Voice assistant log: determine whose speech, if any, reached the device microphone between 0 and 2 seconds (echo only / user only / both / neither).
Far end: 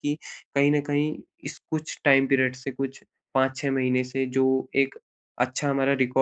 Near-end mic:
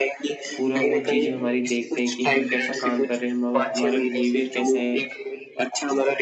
both